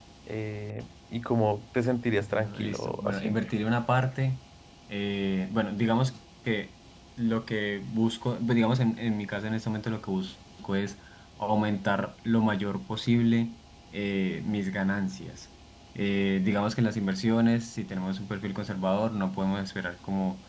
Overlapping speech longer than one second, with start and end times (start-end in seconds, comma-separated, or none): 2.2-3.4